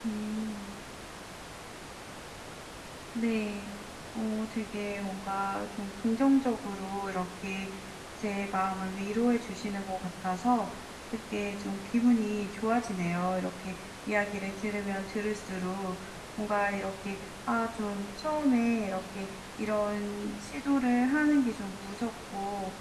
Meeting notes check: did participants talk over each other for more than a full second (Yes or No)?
No